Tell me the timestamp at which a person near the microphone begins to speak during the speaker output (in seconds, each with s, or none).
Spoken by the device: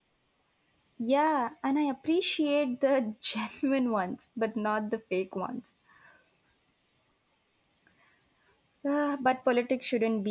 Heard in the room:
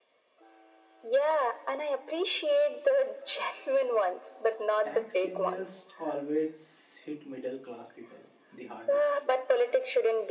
4.8 s